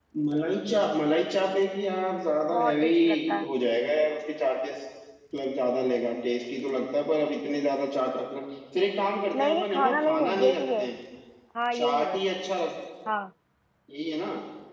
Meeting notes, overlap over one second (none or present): present